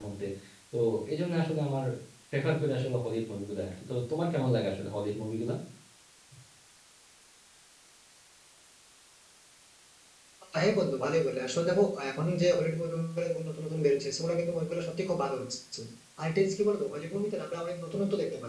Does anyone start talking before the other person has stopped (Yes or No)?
No